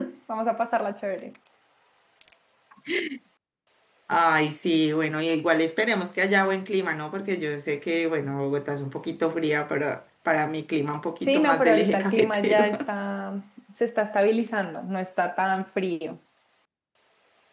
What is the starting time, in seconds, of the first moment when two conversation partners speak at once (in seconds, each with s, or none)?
11.3 s